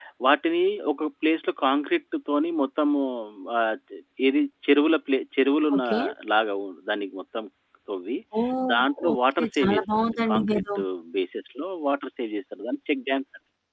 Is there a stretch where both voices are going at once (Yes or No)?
Yes